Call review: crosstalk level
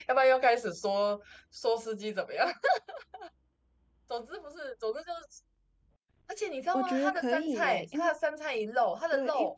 present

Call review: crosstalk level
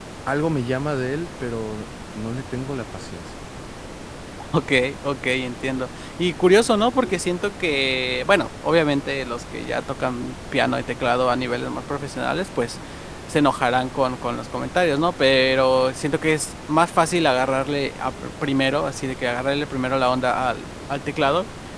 none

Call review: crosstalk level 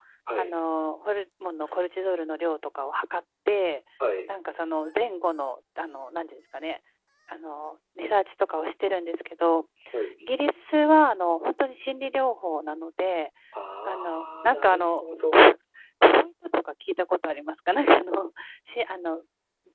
present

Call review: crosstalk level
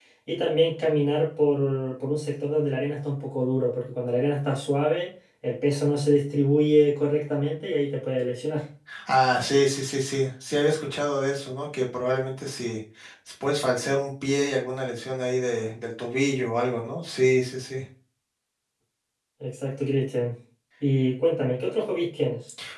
none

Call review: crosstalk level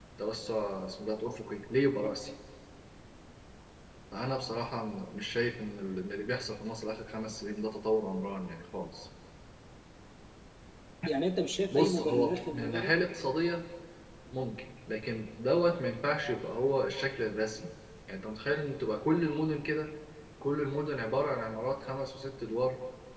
present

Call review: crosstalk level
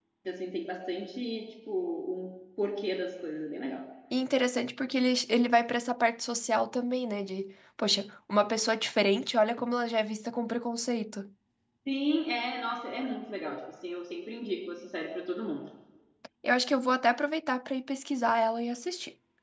none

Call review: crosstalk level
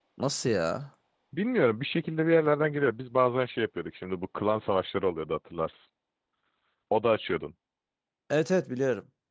none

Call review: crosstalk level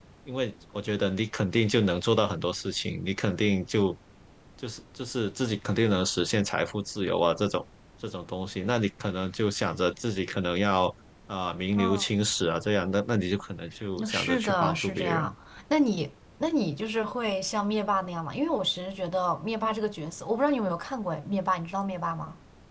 present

